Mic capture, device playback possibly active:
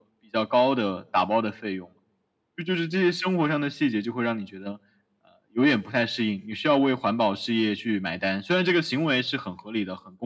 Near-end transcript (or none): none